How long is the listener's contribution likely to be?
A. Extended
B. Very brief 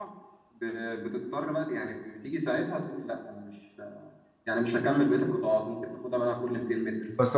A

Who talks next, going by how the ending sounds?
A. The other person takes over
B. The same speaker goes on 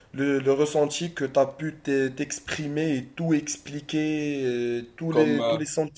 B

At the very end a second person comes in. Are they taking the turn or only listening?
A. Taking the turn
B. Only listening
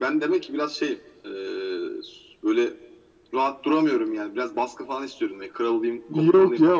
A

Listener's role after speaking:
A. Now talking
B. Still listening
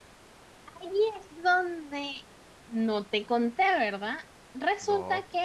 B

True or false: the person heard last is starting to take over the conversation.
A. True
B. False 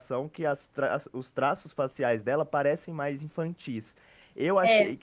B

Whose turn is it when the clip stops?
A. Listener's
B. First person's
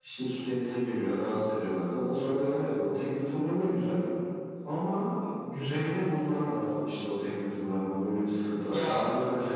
B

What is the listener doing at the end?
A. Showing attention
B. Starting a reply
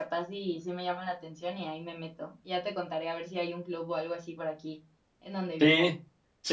B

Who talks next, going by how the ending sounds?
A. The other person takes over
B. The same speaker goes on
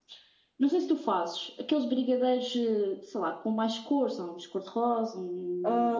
A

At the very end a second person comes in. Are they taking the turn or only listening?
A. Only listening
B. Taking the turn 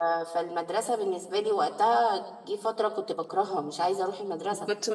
B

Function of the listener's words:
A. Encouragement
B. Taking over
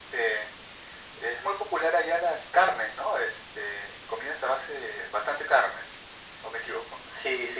B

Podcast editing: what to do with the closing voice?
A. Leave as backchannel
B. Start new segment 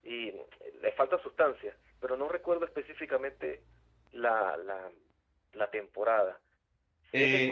A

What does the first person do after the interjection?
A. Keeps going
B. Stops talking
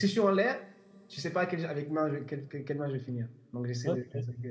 A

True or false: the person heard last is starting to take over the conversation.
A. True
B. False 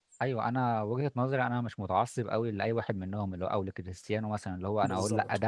B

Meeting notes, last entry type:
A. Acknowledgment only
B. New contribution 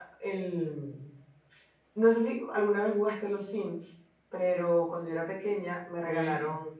A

